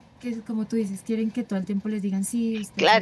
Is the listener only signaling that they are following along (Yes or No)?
No